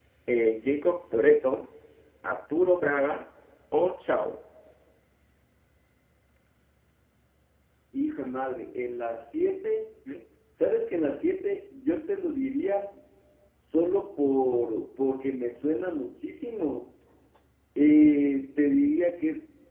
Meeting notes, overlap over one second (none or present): none